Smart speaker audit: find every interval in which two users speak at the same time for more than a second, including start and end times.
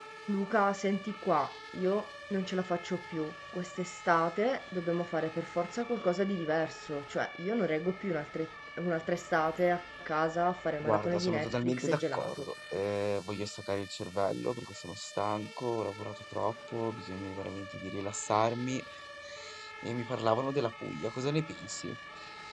10.8-12.5

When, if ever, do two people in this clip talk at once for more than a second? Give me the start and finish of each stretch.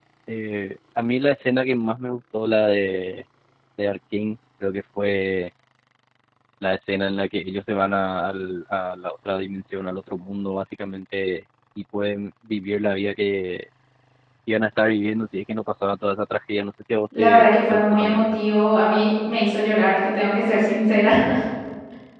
17.2-18.4

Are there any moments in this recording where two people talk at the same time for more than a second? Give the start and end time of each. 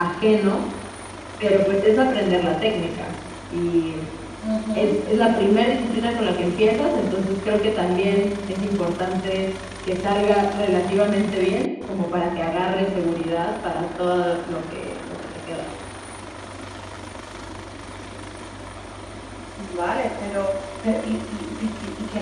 none

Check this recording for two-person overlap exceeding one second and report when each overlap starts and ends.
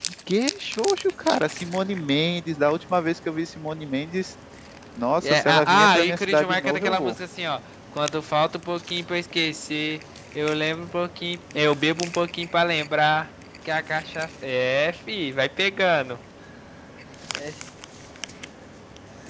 5.2-7.2

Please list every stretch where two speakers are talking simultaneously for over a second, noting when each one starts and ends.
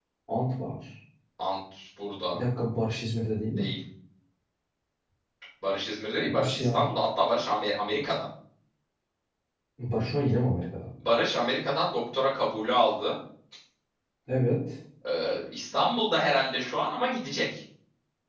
none

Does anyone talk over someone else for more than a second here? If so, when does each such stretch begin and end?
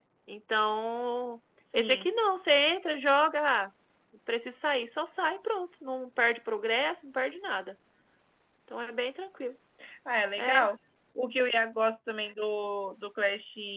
none

